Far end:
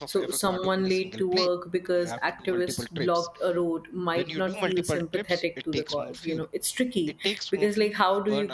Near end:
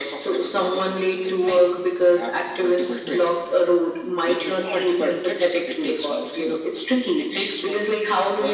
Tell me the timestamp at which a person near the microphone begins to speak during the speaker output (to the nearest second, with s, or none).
none